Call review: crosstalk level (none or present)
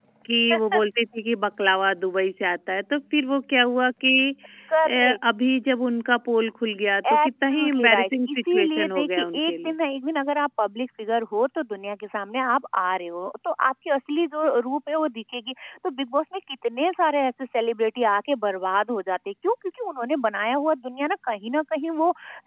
present